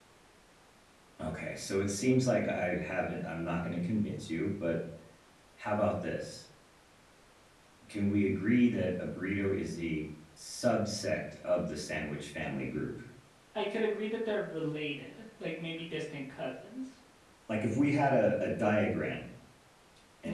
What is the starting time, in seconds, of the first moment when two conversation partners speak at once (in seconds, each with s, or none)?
none